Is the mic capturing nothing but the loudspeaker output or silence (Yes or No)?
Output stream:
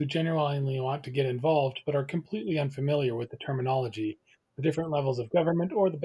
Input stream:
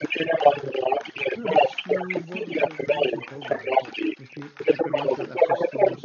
No